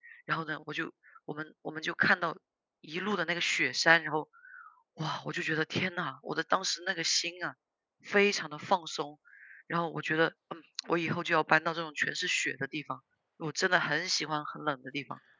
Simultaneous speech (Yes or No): No